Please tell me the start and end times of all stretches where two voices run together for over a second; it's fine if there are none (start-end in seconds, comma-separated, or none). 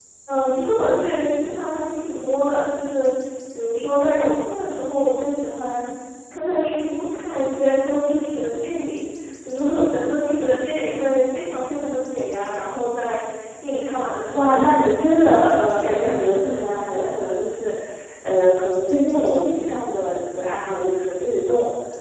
14.3-17.4